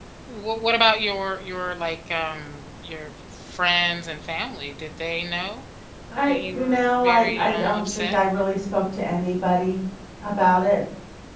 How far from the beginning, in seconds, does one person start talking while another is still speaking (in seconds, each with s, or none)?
6.3 s